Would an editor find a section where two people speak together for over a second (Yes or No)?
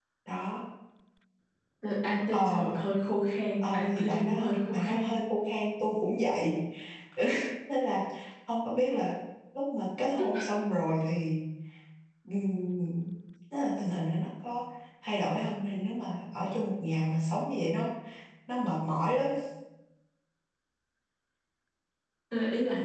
Yes